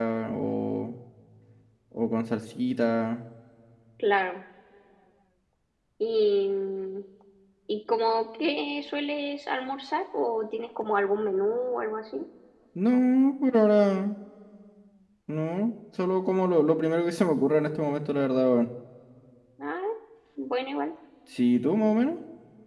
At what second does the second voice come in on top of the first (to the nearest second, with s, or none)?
none